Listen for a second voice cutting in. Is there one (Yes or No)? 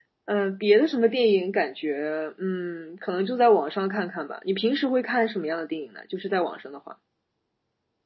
No